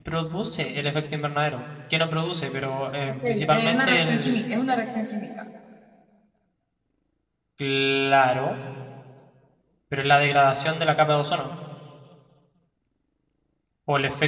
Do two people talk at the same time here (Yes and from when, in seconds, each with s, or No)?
Yes, from 3.2 s